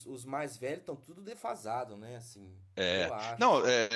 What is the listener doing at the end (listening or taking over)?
taking over